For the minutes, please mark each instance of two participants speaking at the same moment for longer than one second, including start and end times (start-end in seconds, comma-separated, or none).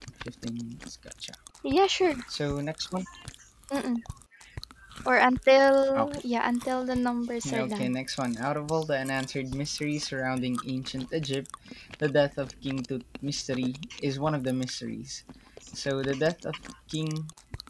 none